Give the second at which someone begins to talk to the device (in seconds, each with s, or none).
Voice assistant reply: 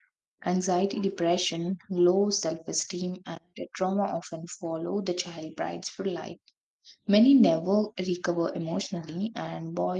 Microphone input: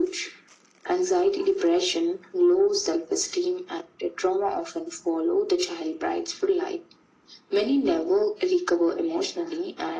none